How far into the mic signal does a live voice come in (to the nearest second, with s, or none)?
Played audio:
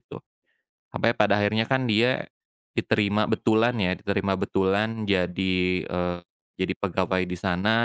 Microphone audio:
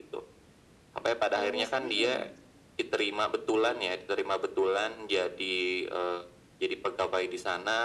1 s